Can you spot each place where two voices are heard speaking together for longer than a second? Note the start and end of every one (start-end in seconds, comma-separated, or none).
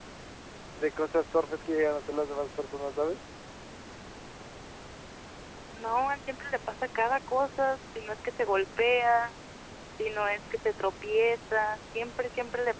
none